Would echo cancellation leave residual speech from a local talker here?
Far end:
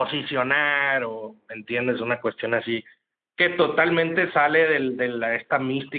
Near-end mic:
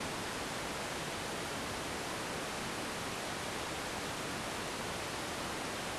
No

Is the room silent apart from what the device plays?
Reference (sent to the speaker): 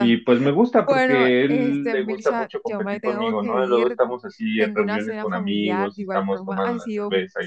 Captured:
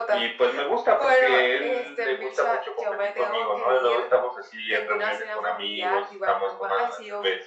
Yes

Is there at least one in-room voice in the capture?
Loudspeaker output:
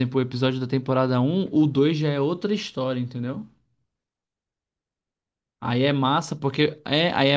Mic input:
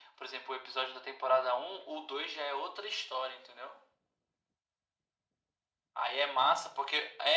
No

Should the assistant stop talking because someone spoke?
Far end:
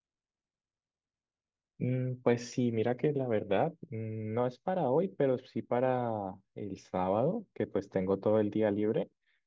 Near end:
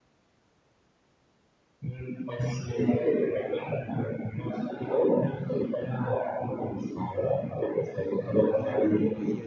Yes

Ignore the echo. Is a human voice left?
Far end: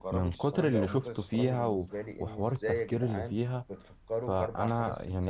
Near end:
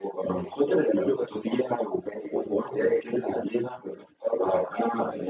No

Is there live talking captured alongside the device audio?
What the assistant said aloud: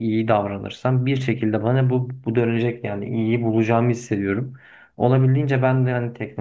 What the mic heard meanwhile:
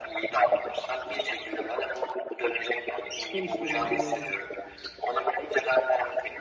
Yes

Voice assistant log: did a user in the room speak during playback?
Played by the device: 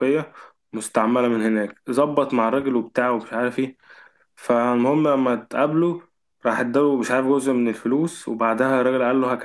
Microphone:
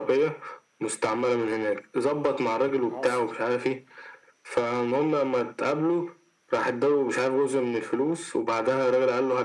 Yes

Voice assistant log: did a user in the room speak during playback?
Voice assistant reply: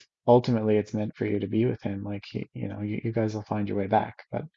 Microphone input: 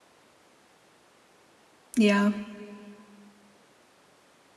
Yes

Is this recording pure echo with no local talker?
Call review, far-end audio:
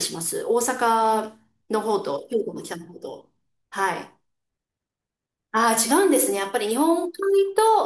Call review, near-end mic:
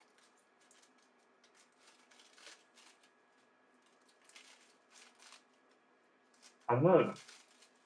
No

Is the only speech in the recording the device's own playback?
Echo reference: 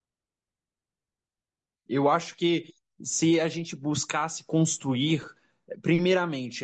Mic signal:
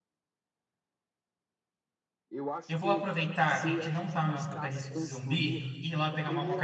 No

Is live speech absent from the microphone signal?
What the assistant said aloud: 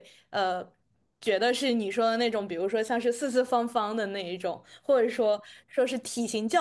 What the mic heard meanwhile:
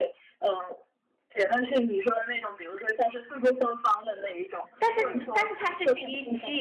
No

